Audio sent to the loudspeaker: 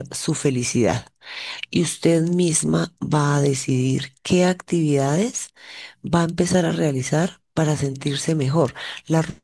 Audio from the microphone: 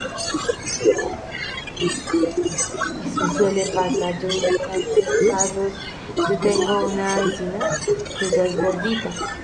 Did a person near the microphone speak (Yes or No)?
Yes